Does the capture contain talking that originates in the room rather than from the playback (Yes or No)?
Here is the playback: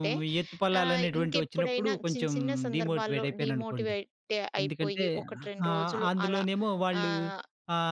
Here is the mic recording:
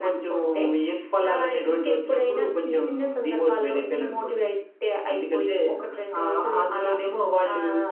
No